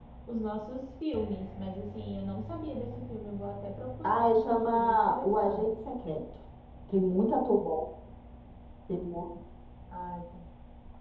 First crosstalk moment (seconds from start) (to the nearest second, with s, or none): 4 s